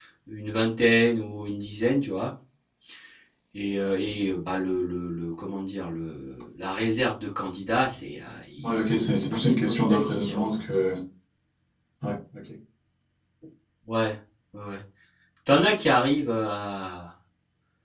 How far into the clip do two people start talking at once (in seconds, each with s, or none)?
8.6 s